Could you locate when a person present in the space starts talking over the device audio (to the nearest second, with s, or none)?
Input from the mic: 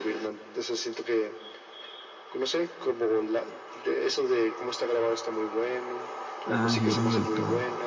6 s